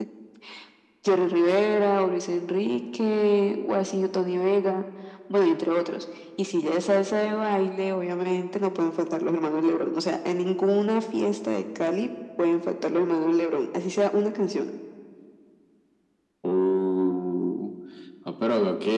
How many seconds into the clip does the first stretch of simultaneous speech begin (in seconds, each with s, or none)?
none